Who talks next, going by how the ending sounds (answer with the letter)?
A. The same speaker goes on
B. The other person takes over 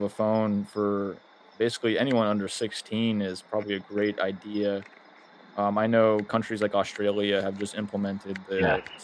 A